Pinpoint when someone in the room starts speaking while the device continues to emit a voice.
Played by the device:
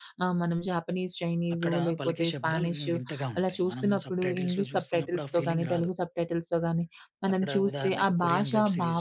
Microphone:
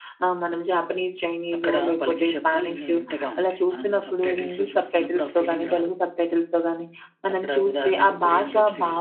none

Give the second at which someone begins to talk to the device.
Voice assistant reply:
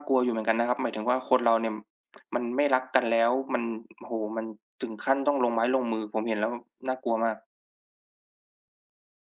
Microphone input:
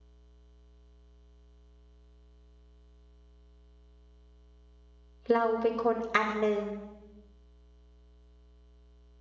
5.3 s

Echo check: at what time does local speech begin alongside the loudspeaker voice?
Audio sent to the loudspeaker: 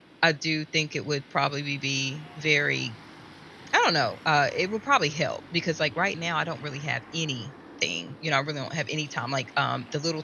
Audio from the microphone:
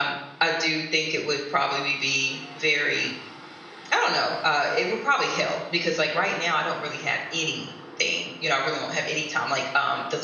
none

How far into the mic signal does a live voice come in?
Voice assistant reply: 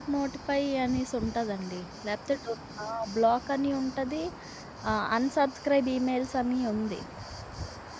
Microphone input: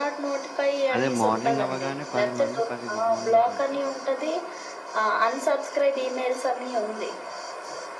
0.9 s

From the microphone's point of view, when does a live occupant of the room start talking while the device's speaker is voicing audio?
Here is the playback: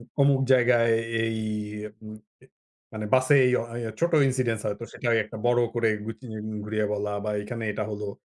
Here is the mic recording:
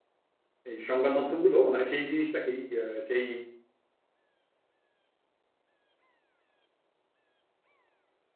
0.6 s

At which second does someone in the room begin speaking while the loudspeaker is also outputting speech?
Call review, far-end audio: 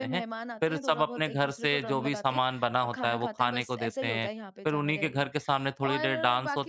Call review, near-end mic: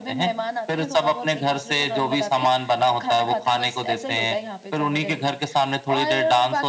none

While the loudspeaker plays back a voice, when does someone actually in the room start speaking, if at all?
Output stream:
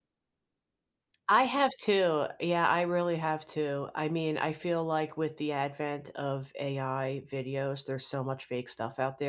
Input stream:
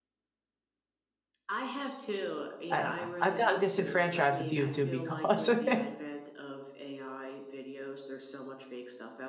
2.7 s

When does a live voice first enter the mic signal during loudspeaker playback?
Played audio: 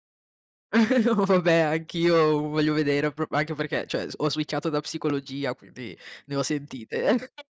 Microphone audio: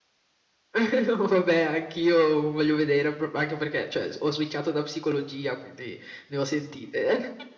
none

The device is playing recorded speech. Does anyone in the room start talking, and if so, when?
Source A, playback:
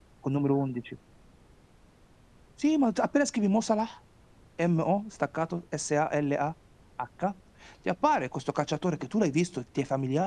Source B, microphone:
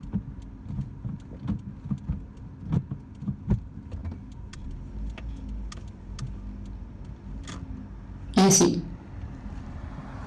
8.3 s

